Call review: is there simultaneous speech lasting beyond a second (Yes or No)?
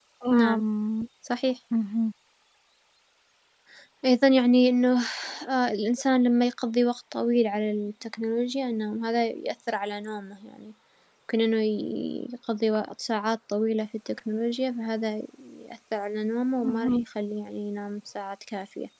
No